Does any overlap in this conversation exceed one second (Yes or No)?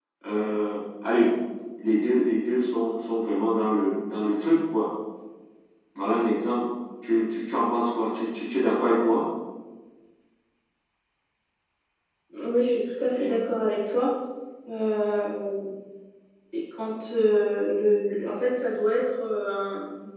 No